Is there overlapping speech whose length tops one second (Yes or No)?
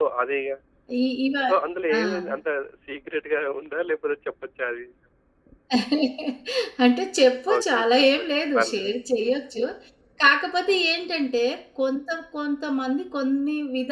Yes